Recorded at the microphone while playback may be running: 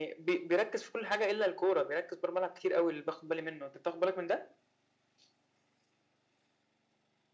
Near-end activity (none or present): none